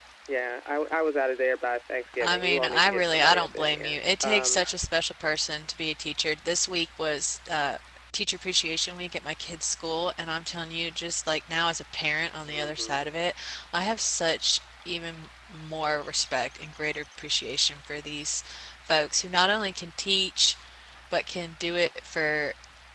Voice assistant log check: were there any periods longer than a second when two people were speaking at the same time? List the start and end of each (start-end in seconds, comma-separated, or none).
2.2-4.6